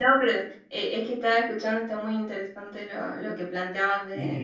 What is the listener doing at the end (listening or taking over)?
taking over